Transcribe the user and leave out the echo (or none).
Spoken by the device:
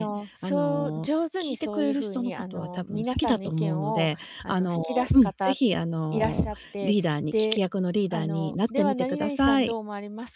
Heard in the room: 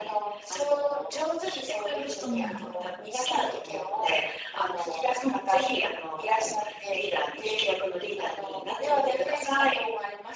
うん。